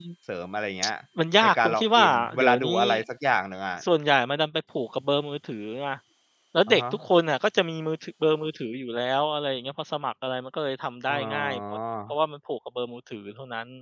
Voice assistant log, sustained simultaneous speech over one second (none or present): present